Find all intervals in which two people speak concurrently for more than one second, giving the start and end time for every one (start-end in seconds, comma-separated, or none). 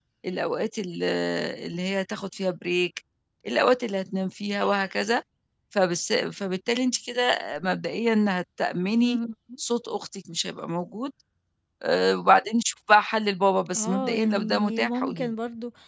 13.8-15.3